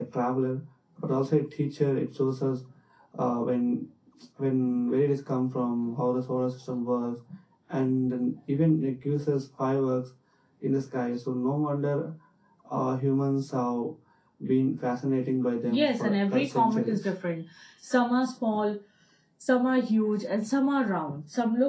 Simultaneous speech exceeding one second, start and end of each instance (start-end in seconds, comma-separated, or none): 15.7-17.1